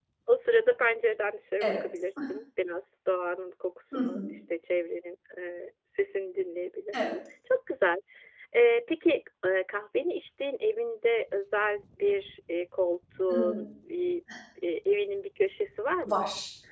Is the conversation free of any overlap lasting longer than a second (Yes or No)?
Yes